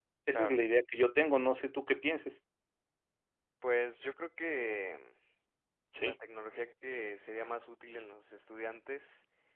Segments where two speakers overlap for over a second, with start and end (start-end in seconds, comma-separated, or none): none